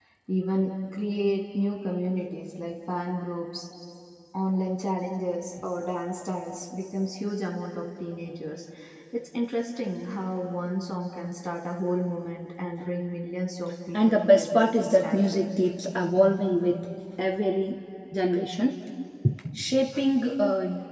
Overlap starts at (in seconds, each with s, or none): 13.9 s